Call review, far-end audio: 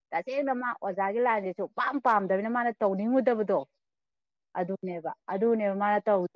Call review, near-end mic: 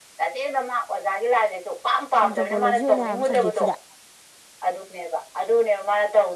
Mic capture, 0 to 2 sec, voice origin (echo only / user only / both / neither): echo only